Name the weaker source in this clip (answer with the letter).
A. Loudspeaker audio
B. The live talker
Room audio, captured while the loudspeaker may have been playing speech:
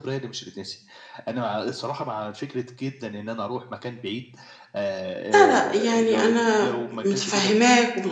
A